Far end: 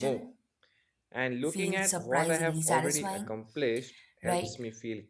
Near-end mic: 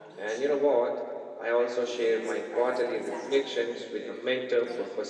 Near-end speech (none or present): present